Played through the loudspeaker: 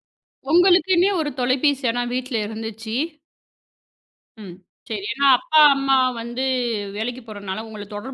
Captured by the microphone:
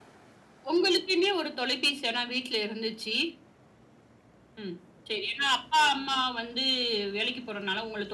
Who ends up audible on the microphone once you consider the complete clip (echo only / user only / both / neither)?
echo only